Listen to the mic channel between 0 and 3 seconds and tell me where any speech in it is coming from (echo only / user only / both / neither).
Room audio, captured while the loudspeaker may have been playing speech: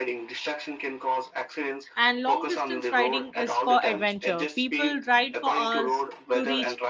both